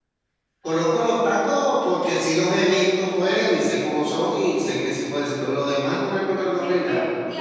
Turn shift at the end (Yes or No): Yes